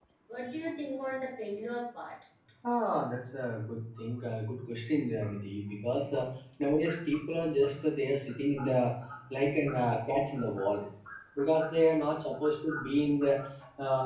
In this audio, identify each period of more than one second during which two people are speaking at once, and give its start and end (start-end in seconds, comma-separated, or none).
none